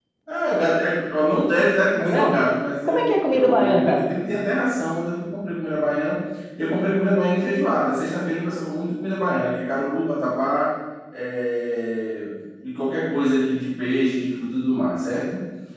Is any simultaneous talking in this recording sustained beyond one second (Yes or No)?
Yes